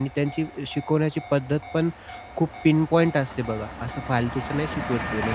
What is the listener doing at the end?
listening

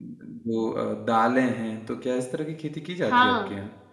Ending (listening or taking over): taking over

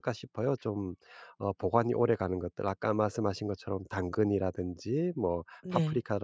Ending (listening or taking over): listening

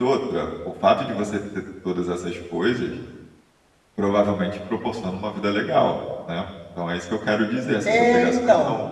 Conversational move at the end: taking over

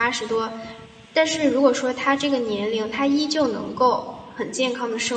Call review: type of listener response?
listening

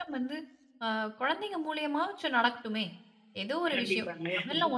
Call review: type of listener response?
listening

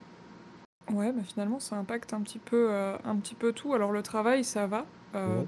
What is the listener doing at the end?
listening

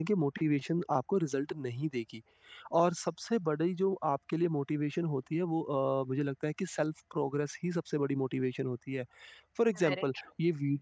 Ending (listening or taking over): listening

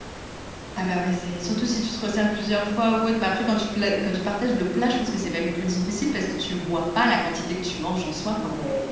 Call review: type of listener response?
taking over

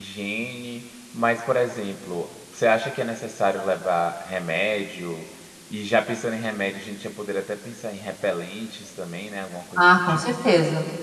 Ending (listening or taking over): taking over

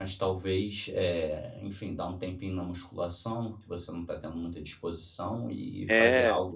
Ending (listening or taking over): taking over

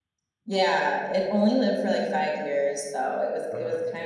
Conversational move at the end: listening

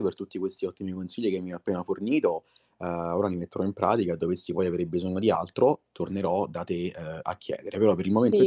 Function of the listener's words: taking over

